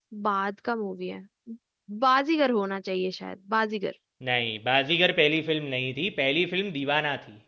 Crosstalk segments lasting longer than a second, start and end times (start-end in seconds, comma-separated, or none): none